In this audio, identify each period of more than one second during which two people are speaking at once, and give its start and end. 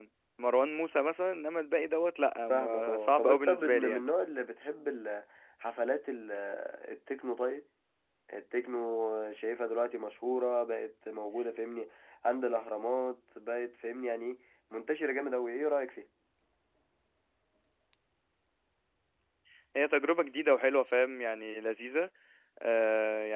2.5-4.0

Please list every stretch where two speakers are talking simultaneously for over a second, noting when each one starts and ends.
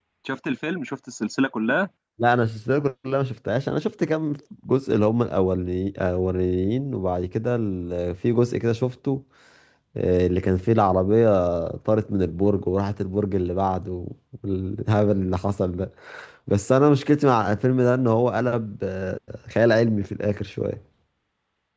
none

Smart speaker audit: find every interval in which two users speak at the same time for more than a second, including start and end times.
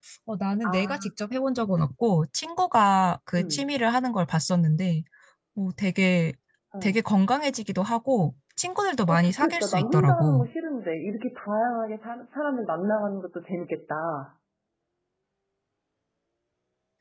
9.1-10.5

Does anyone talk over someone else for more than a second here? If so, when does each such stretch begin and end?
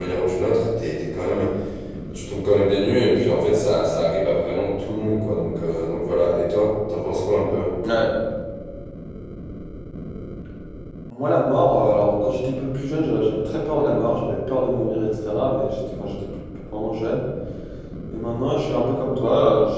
none

